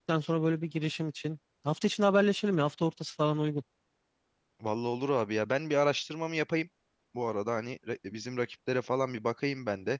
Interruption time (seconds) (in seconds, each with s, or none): none